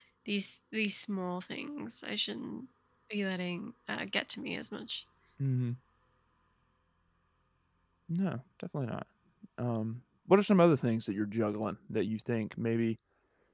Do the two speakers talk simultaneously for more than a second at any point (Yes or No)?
No